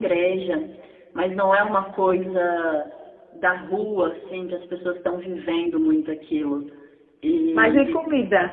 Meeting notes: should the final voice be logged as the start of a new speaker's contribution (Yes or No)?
Yes